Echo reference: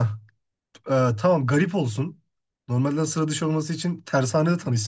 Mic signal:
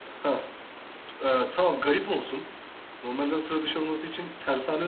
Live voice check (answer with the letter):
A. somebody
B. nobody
B